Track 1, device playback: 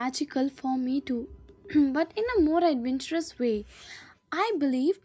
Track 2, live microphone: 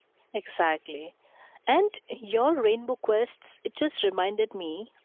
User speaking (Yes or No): Yes